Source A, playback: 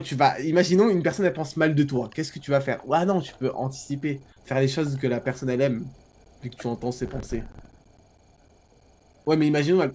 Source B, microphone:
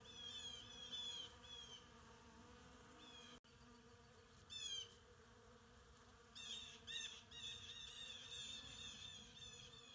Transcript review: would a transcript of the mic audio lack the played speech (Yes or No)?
Yes